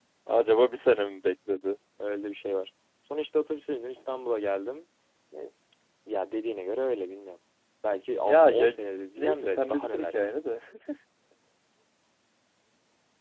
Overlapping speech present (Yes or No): Yes